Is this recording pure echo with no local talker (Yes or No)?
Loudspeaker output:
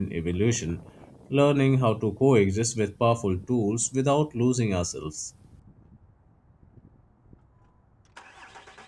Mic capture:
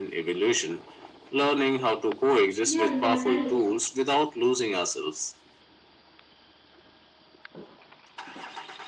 No